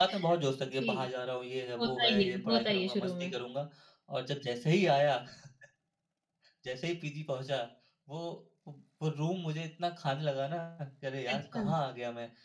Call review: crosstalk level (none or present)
present